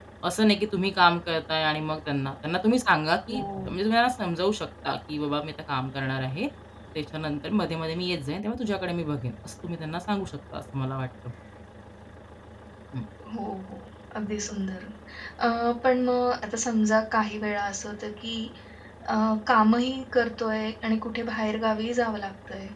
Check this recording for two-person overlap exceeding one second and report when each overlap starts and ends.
none

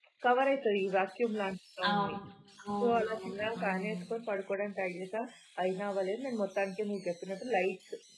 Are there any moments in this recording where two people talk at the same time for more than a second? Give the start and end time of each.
2.8-4.0

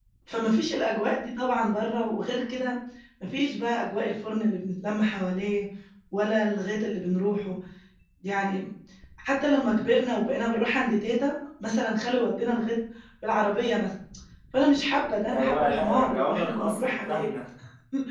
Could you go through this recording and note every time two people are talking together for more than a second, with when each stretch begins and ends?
15.3-17.3

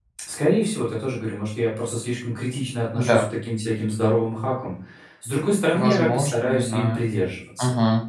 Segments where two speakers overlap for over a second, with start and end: 5.7-7.1

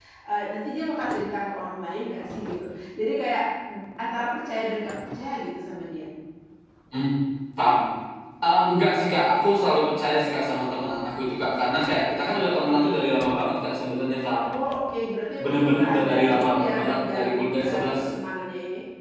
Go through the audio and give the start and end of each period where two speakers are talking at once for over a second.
15.4-18.1

